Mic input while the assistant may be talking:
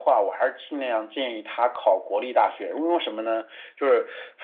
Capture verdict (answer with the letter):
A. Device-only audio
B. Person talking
A